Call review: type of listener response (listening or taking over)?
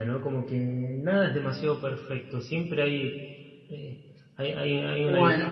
listening